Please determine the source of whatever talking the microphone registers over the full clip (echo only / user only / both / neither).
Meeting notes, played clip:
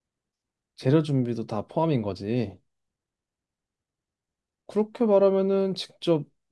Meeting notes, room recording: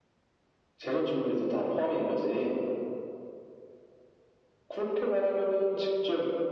echo only